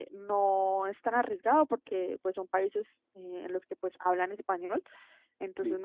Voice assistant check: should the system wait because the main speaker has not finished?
Yes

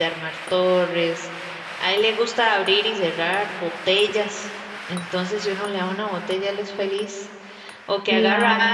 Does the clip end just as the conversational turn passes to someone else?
No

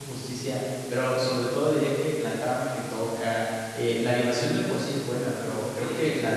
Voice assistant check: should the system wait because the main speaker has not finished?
Yes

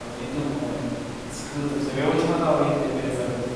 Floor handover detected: Yes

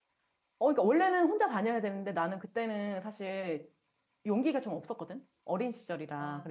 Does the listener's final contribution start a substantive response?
Yes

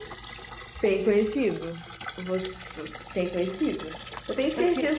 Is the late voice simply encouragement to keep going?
Yes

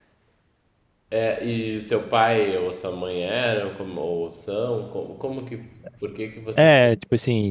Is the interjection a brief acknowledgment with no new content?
No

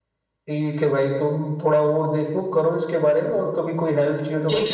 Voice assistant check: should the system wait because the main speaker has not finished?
No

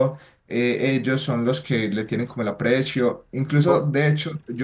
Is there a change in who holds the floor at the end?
No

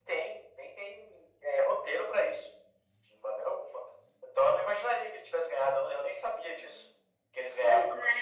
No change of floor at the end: No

